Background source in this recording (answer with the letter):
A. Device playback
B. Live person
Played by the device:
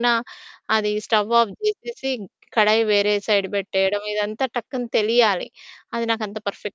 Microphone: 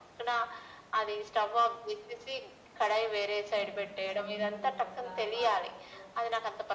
B